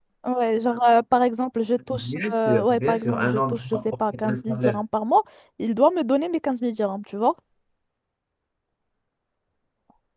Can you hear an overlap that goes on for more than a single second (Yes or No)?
Yes